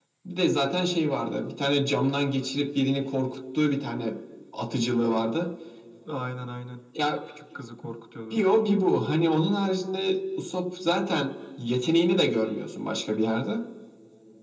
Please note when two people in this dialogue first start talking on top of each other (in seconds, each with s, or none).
none